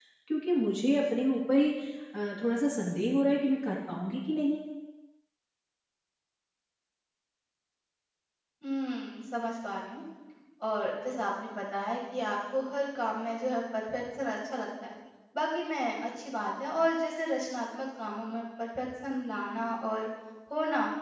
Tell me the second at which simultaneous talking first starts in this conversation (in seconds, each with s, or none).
none